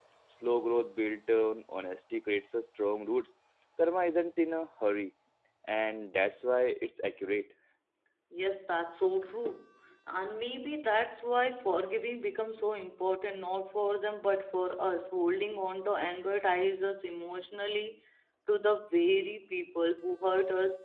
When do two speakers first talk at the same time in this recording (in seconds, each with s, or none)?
none